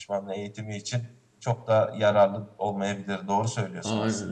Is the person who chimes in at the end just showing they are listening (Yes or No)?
No